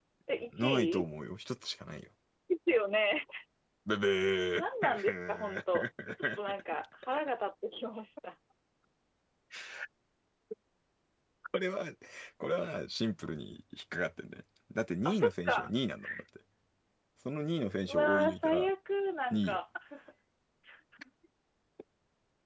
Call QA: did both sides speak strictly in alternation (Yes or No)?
No